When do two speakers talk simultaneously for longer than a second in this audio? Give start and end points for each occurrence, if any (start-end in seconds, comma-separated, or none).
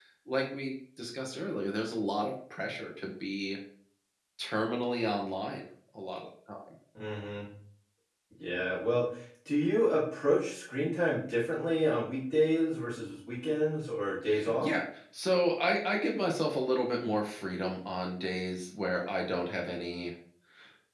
none